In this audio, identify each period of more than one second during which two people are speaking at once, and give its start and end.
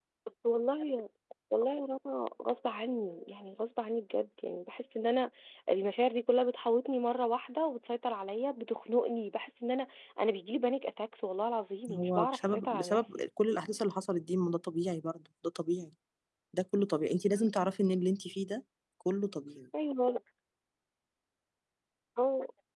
11.9-13.2

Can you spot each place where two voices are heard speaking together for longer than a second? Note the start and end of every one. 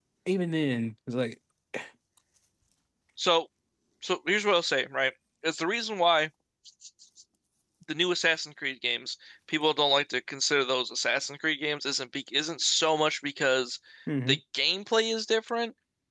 none

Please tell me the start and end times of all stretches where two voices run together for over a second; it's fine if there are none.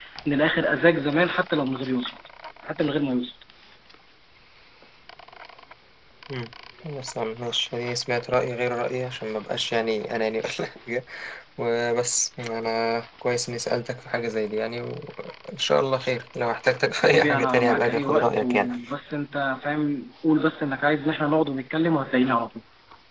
17.0-18.7

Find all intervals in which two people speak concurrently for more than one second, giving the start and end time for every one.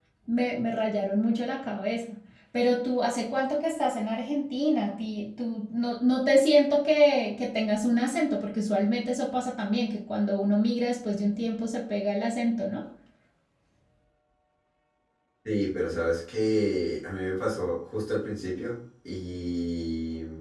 none

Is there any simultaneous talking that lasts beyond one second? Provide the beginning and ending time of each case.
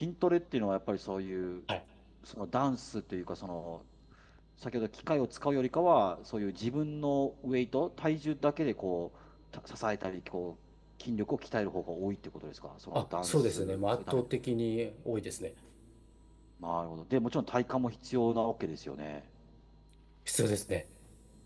12.9-14.2

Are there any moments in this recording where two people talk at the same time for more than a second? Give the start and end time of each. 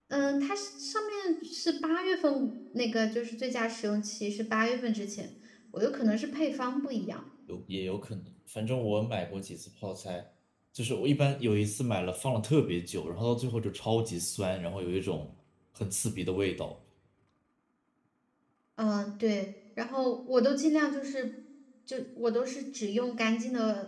none

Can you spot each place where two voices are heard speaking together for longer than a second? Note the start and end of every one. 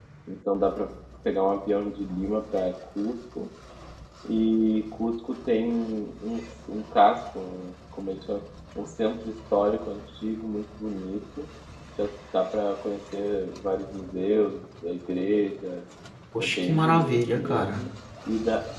16.4-17.8

